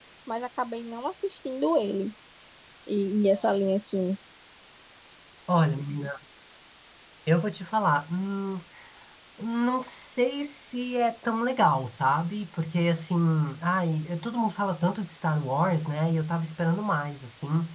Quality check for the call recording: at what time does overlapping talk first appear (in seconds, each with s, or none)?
none